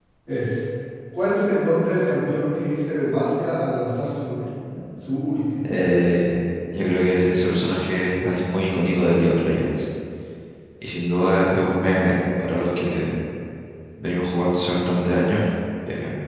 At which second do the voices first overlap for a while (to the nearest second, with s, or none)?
none